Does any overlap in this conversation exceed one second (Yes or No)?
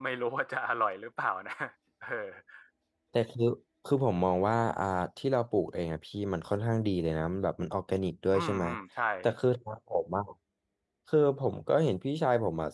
No